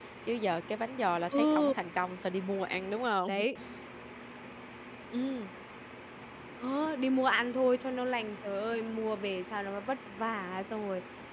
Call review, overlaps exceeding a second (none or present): none